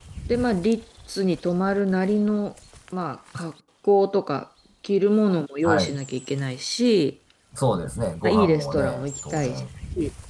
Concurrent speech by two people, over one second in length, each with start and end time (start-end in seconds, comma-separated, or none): 8.2-9.6